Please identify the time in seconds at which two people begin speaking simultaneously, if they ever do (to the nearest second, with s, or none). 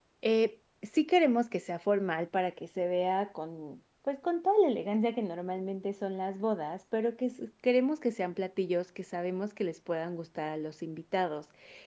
none